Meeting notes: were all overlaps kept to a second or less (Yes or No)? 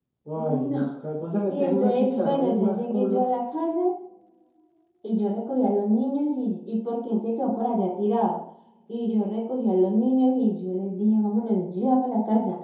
No